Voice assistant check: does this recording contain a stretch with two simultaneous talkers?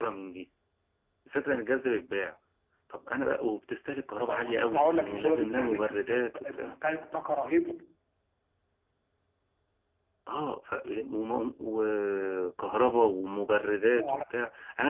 Yes, from 4.3 s

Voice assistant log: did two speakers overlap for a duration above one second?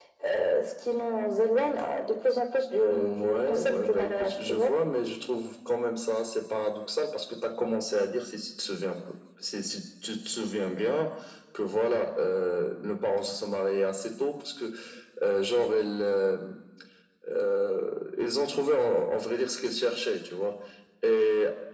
Yes, from 2.9 s

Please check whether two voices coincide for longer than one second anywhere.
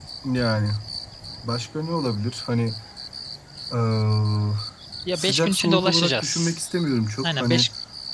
Yes, from 5.2 s

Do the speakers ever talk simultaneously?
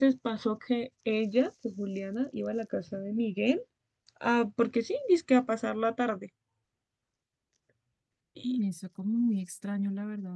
No

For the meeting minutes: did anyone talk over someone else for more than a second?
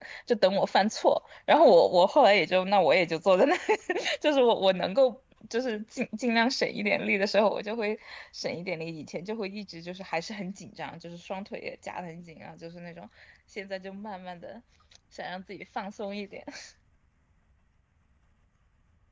No

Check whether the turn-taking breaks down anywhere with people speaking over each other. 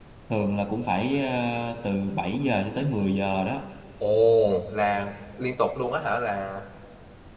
No

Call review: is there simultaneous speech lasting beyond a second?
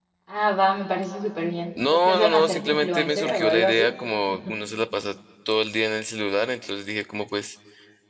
Yes, from 1.8 s

